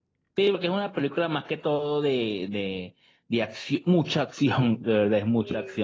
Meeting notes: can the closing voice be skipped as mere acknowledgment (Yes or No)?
Yes